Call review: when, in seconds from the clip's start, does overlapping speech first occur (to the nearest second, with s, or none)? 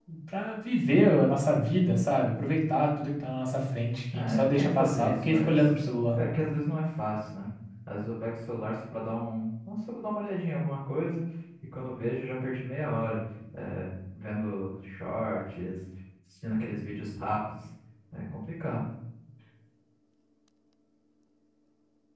4 s